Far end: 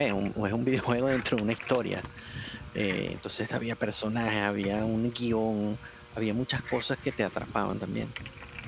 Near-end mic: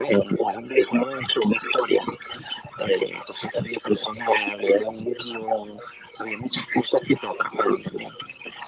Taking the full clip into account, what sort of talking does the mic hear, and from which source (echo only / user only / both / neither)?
echo only